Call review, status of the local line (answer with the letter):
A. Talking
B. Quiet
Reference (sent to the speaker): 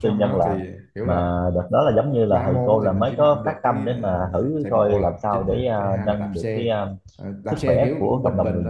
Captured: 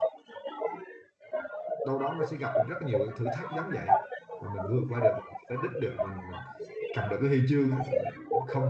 A